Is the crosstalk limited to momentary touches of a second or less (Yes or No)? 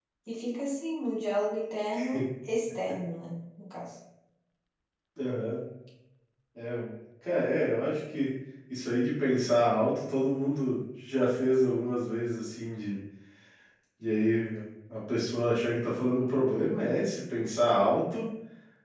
Yes